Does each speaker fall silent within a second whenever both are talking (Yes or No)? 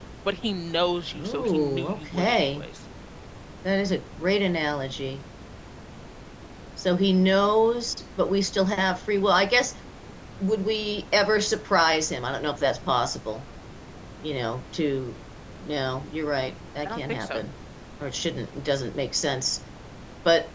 No